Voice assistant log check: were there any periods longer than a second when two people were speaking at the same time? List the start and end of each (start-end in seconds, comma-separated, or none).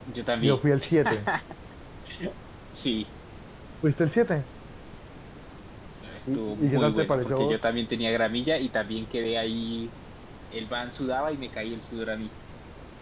6.3-7.6